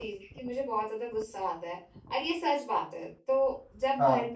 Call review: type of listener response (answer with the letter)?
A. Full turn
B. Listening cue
B